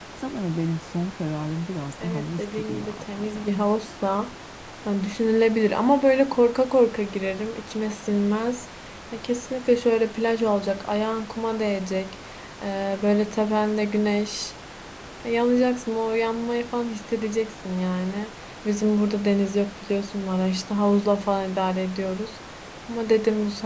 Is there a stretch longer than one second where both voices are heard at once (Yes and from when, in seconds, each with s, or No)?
Yes, from 2.0 s